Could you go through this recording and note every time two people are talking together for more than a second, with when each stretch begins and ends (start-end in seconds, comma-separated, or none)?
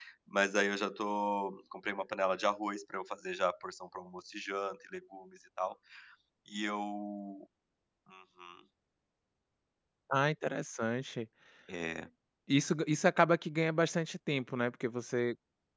none